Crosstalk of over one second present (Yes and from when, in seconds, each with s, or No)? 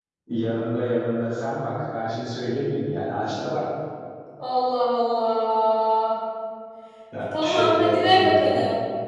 Yes, from 7.3 s